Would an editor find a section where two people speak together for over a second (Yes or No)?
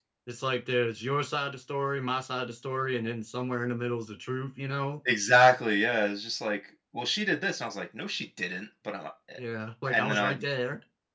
No